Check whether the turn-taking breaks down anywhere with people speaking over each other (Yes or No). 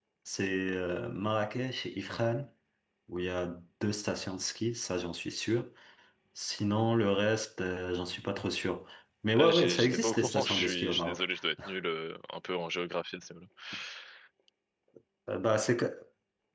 Yes